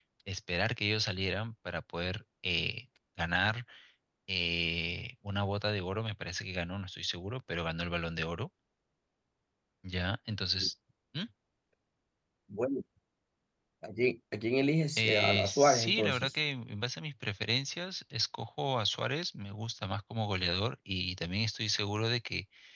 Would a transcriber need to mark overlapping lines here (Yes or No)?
Yes